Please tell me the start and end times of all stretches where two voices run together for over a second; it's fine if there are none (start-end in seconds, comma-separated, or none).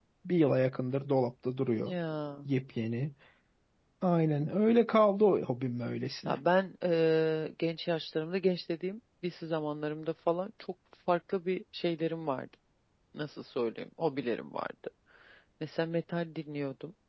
none